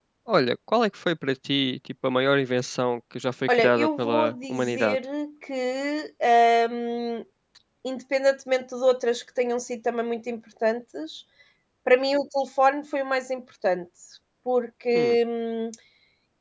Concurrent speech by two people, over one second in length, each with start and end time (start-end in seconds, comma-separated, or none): 3.5-5.0